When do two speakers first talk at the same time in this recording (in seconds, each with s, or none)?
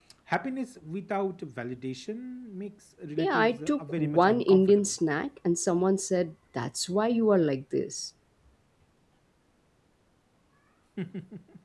3.2 s